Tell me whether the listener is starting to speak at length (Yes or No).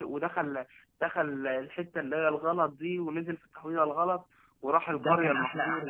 Yes